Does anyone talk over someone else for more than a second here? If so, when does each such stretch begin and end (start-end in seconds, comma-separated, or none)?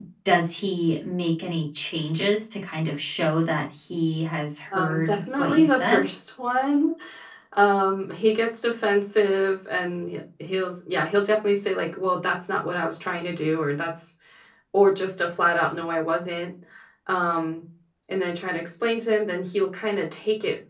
4.7-6.0